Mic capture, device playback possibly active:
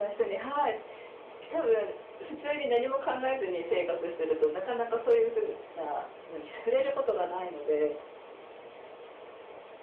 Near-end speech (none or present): none